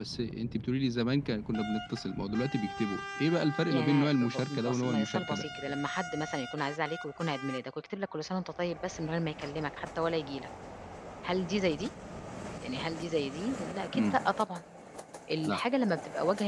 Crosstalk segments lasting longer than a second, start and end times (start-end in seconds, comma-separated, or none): 3.7-5.5